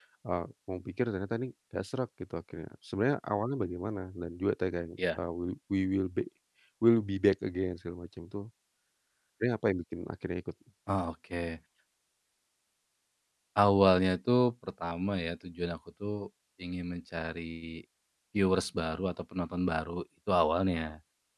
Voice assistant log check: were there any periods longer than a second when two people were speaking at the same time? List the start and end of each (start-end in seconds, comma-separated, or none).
none